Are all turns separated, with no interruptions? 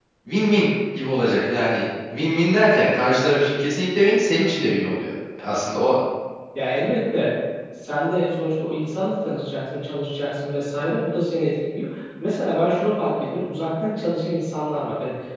Yes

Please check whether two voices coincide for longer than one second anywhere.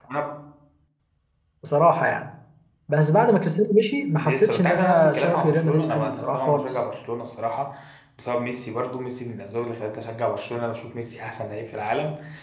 Yes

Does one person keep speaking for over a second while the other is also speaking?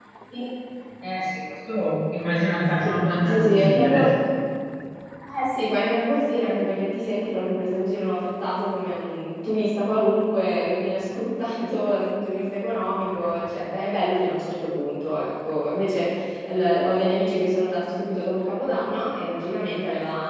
Yes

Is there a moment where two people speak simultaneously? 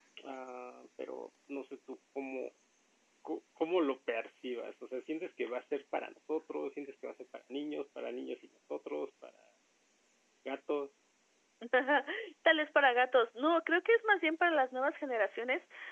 No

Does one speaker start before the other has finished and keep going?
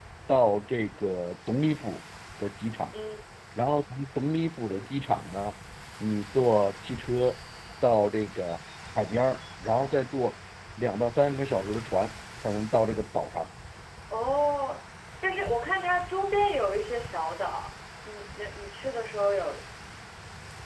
No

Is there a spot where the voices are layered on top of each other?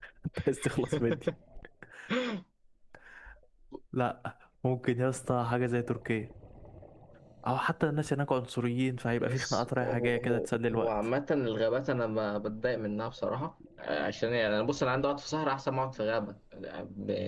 Yes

